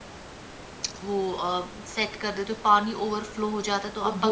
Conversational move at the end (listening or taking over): taking over